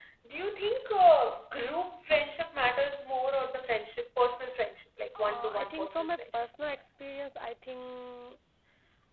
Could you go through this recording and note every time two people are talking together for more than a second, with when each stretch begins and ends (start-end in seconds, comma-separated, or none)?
5.2-6.8